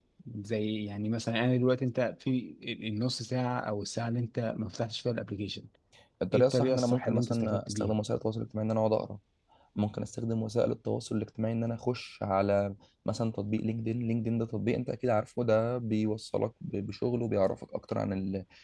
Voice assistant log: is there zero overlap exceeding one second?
No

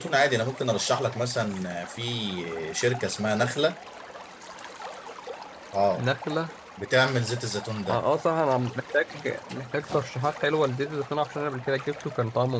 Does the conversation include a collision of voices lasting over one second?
No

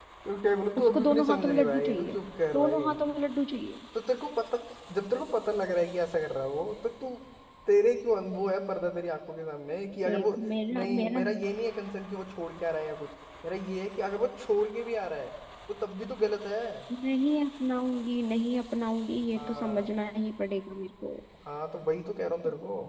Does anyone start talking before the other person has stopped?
Yes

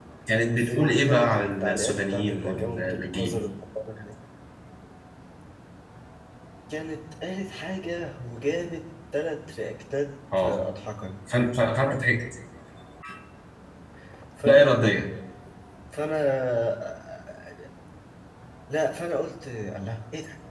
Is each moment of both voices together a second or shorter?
No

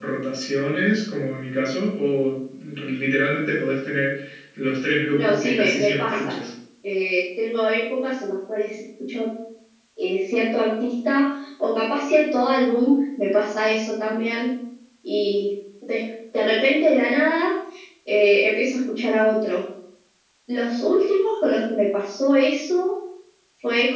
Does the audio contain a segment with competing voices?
Yes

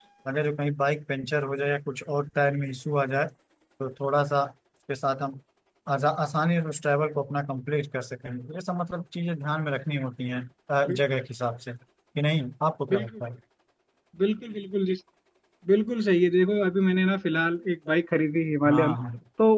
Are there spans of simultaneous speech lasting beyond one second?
No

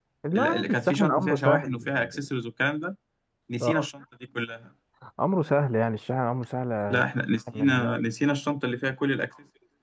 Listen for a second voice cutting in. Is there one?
Yes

